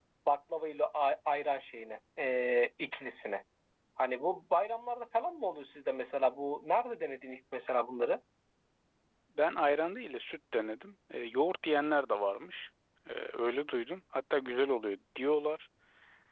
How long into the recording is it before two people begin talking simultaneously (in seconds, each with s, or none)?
none